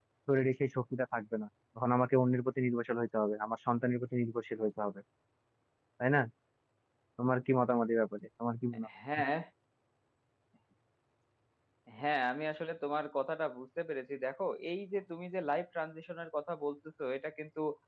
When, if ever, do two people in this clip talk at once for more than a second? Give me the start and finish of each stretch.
none

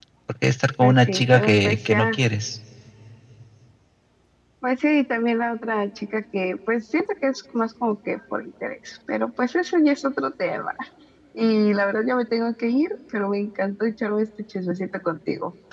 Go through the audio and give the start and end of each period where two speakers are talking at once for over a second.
0.8-2.1

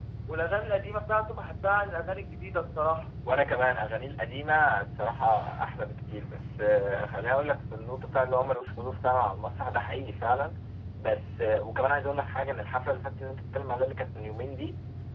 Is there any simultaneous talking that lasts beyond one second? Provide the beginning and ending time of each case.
none

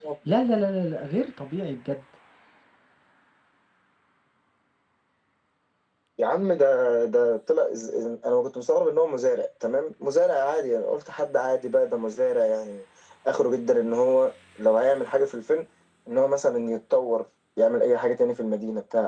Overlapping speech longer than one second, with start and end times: none

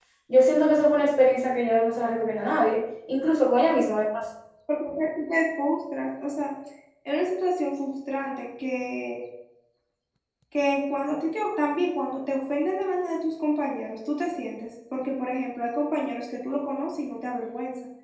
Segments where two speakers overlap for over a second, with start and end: none

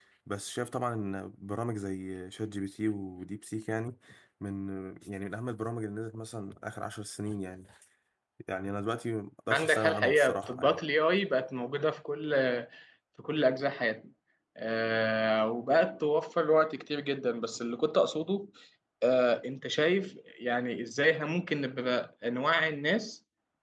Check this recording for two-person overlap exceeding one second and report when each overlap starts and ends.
9.5-10.8

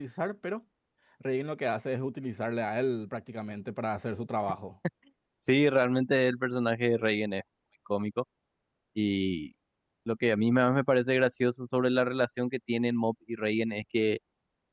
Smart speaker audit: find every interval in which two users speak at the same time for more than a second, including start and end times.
none

